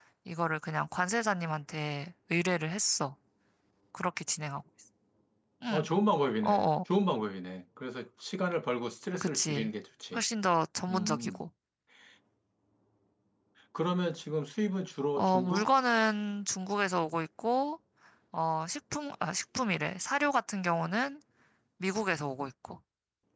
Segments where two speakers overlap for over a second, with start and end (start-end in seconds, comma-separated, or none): none